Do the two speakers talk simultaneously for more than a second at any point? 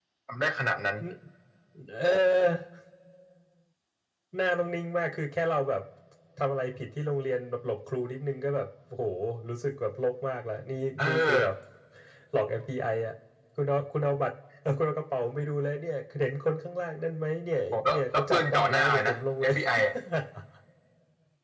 Yes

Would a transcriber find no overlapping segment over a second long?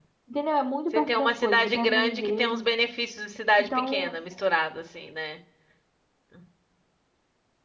No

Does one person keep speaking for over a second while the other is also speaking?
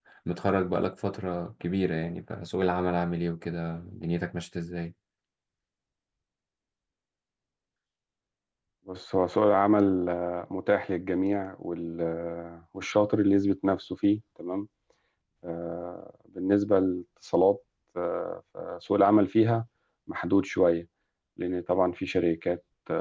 No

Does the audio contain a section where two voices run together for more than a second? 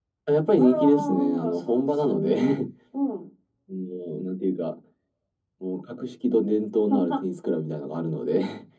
Yes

